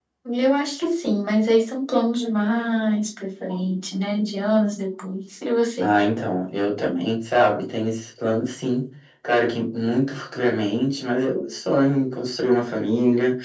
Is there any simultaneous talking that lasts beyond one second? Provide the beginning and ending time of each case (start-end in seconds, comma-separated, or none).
none